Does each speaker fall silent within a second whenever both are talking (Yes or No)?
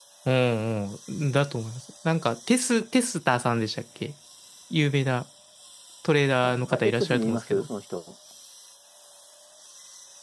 No